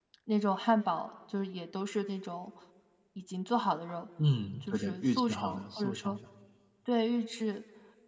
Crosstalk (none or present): present